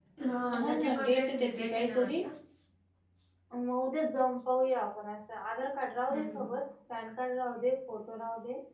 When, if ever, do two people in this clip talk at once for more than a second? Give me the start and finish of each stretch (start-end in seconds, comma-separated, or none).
0.6-2.1